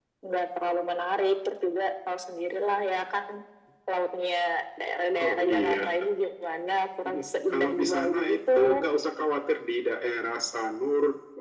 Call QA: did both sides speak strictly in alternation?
No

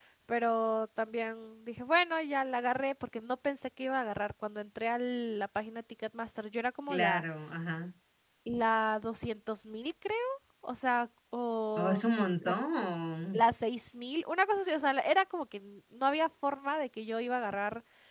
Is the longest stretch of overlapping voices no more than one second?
Yes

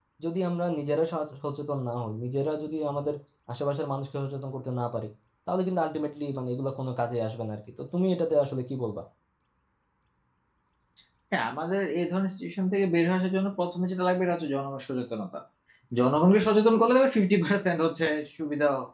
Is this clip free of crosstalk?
Yes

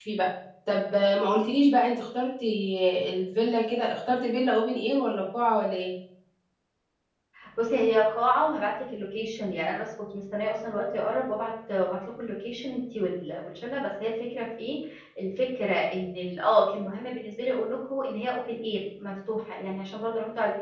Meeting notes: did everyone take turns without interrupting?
Yes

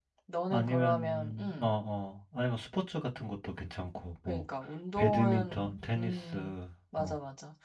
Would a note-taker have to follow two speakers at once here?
Yes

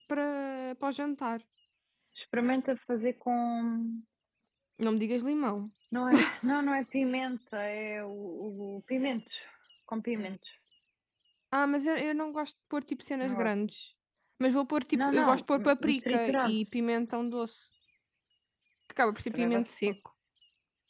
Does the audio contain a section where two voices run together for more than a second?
Yes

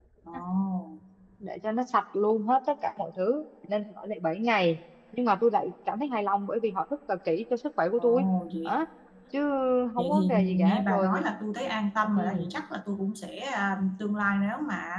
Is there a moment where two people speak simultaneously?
Yes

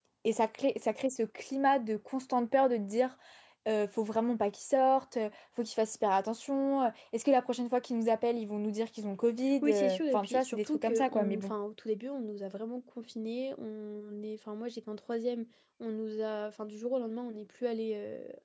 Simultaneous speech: Yes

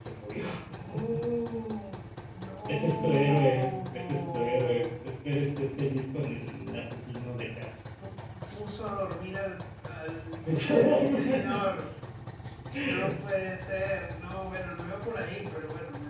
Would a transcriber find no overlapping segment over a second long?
No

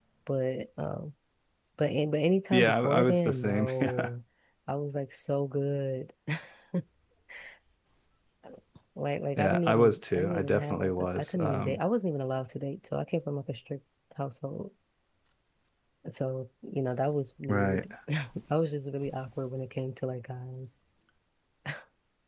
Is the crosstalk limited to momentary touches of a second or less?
No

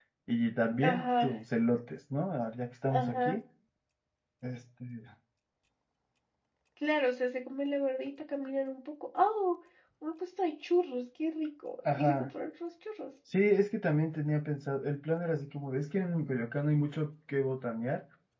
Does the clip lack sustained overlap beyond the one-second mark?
Yes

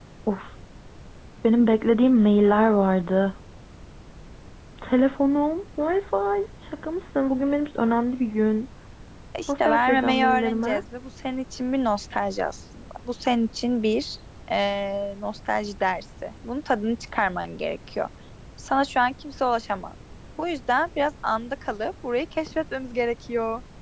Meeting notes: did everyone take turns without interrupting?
No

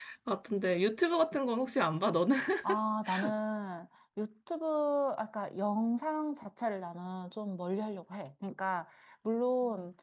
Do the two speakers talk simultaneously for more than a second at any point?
No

